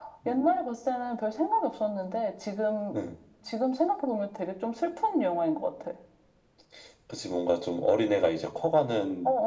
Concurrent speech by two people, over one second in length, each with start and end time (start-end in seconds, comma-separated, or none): none